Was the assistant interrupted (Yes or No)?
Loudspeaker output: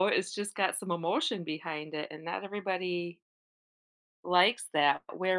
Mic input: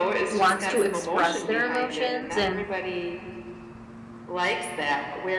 Yes